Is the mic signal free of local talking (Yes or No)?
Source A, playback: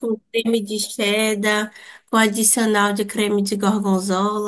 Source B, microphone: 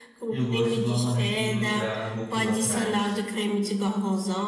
No